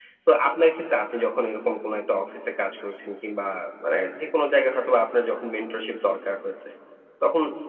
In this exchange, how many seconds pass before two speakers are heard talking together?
none

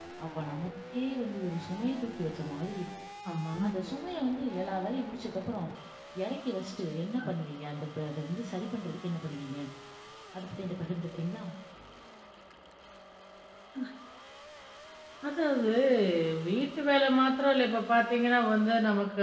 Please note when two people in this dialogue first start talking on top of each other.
none

